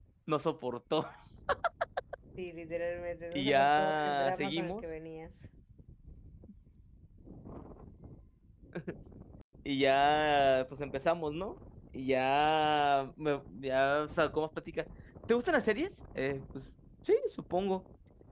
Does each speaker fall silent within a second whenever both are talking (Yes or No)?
No